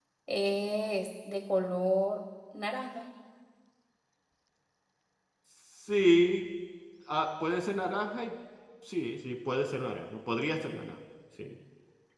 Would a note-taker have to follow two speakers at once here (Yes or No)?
No